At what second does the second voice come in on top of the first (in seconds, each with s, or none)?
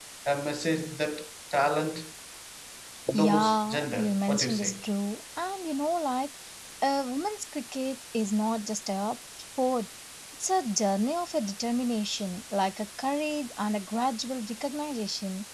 3.1 s